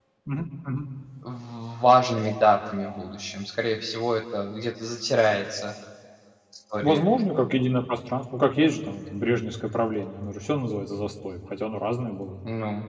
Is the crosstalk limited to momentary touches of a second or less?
Yes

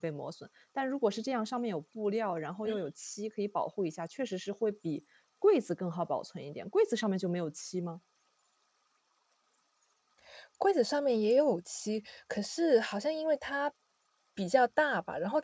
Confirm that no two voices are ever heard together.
Yes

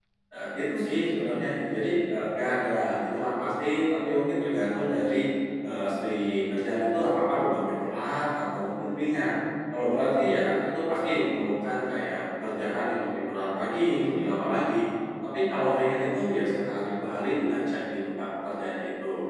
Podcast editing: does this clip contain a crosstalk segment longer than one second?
No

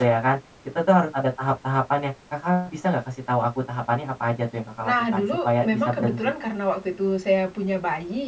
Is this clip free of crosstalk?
No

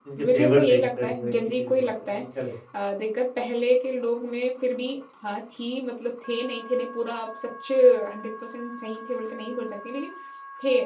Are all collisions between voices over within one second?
No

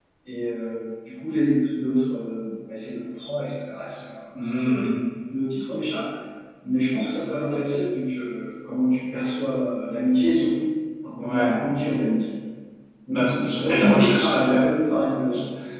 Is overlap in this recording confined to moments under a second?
No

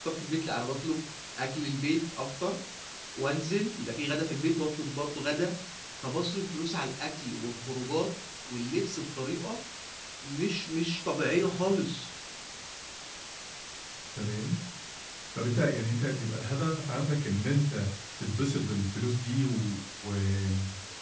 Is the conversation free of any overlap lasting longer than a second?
Yes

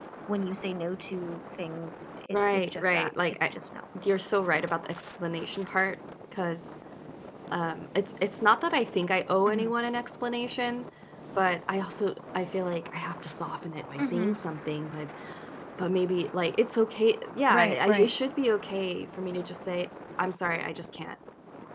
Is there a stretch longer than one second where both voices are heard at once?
Yes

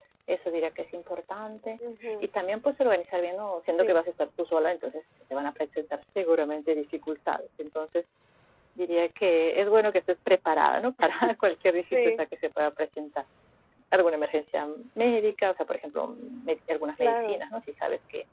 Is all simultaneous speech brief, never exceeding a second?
Yes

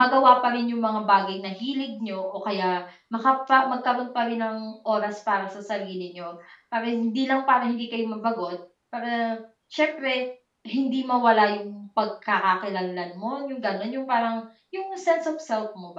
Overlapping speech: No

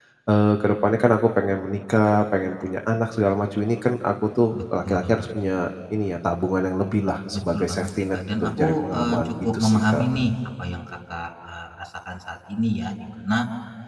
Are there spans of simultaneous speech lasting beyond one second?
Yes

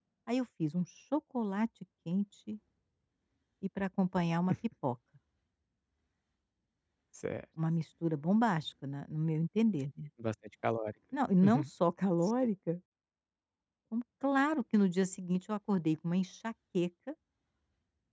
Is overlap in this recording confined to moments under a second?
Yes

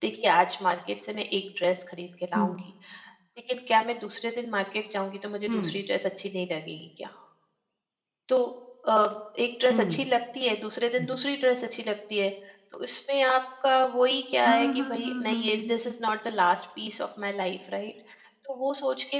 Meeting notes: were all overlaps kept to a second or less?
No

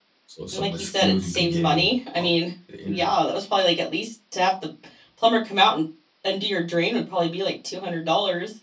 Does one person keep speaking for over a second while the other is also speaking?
Yes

